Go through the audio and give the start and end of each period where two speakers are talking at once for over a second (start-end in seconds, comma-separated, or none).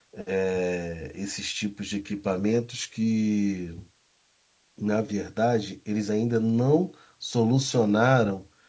none